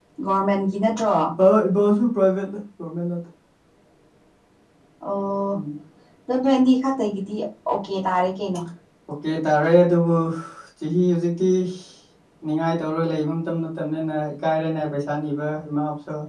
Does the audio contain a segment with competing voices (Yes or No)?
No